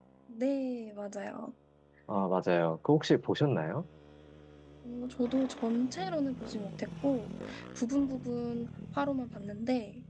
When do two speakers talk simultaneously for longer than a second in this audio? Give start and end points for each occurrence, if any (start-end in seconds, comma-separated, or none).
none